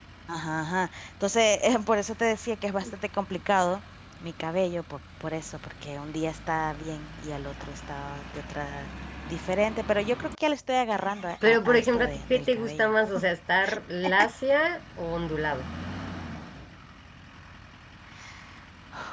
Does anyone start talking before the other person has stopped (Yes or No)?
Yes